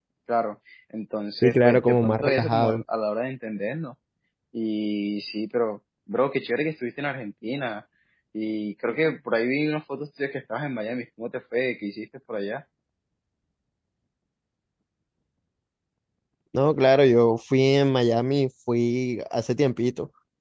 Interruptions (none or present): present